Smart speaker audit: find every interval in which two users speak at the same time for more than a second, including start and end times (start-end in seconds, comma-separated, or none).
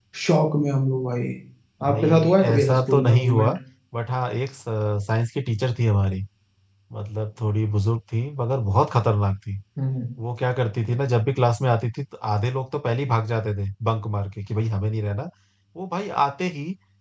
1.9-3.5